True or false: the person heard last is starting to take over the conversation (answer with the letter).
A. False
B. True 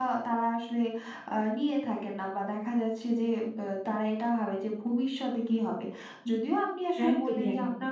A